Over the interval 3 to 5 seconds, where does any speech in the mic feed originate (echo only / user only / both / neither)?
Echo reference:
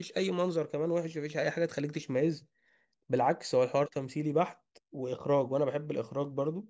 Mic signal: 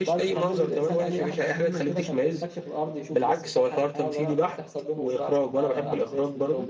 both